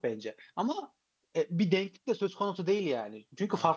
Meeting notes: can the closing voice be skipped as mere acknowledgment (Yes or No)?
Yes